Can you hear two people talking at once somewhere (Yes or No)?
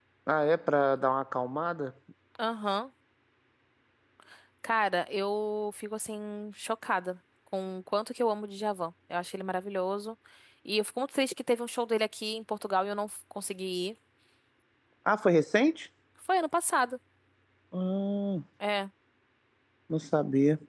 No